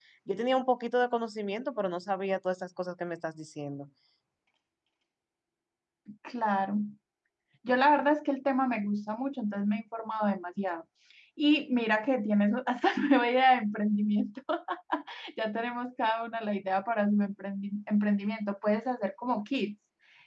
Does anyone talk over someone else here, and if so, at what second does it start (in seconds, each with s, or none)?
none